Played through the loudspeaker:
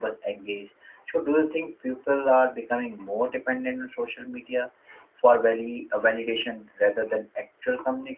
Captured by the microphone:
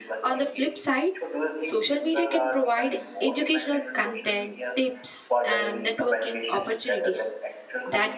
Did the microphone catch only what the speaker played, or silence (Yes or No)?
No